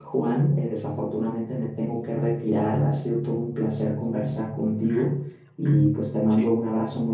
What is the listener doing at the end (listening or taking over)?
listening